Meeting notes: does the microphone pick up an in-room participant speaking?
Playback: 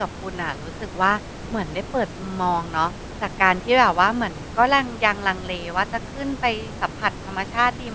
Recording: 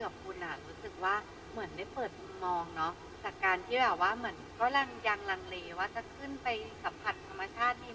No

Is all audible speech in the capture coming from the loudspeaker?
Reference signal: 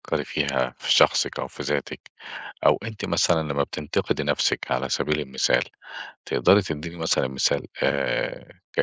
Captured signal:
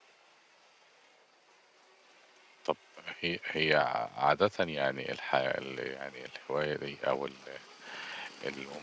No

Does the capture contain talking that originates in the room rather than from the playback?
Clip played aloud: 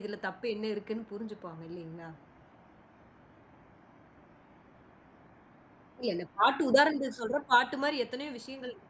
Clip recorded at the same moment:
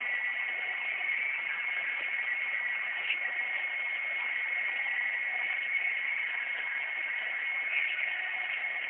No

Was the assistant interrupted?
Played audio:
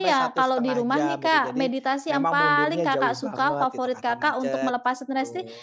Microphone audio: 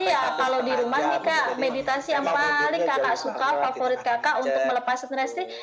Yes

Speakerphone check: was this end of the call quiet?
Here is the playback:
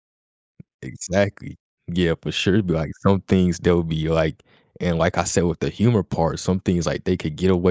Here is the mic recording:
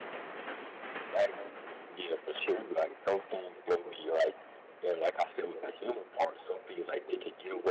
Yes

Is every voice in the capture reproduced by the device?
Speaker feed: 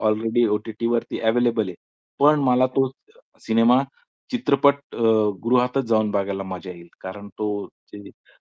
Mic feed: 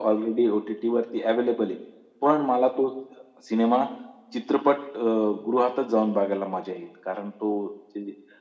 Yes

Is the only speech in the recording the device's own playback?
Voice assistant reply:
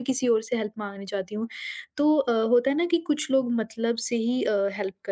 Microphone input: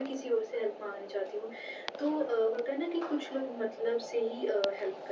Yes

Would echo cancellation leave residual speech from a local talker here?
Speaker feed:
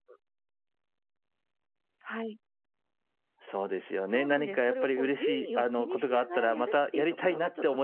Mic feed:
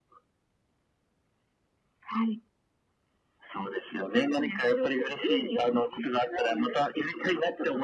No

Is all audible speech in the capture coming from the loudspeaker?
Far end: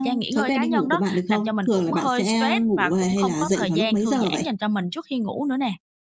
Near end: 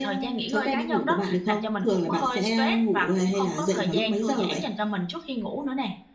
Yes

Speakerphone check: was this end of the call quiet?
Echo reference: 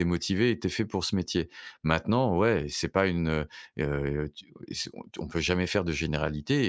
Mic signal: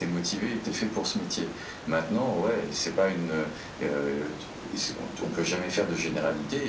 Yes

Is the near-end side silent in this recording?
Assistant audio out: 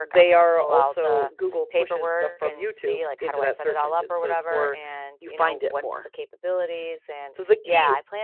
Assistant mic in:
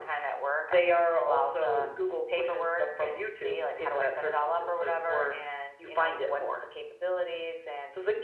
Yes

